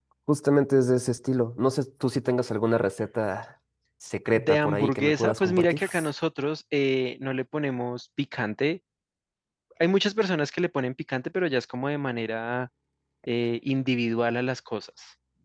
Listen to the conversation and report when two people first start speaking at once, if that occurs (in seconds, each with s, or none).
4.3 s